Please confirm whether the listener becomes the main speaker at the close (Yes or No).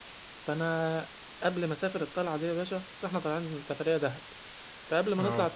No